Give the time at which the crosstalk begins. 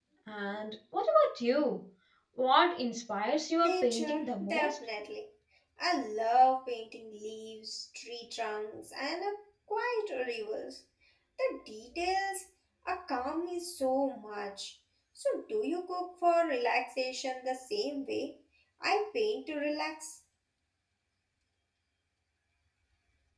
3.5 s

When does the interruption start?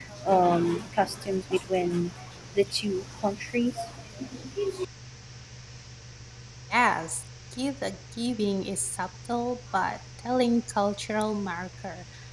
none

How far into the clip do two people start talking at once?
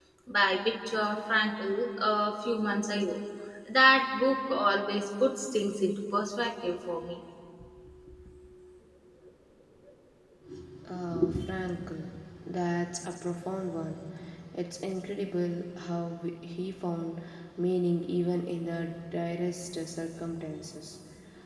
none

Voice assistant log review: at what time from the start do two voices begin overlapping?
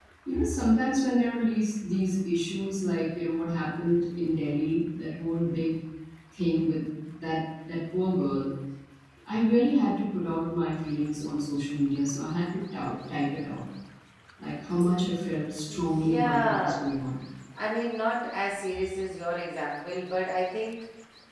15.7 s

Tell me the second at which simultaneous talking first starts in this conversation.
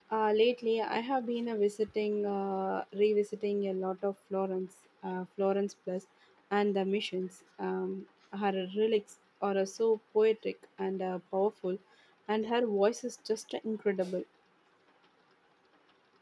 none

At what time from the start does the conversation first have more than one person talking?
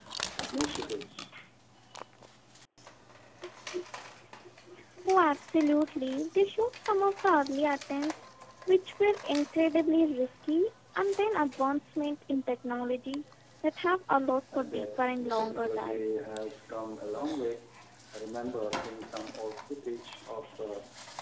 14.5 s

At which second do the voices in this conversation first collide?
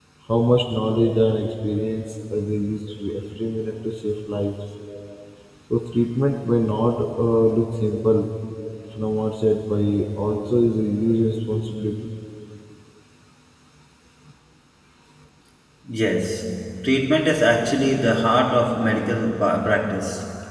none

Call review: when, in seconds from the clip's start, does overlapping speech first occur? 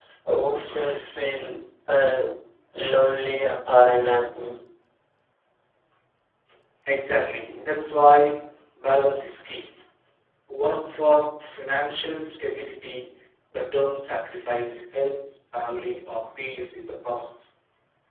none

